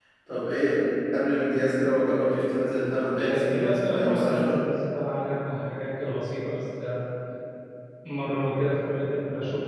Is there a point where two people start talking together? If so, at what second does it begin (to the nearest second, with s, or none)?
3 s